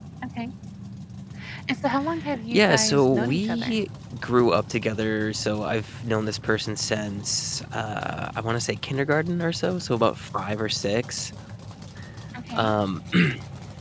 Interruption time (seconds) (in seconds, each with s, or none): 2.5 s